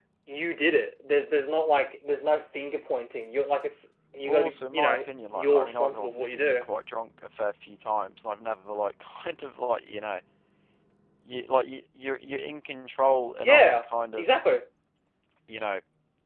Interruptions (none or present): present